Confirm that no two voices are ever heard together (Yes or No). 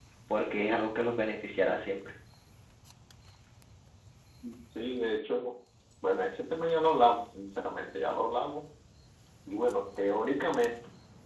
Yes